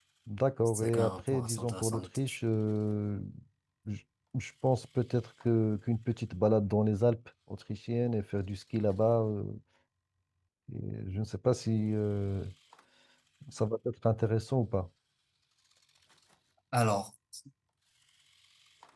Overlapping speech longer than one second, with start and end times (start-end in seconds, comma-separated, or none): 0.7-2.1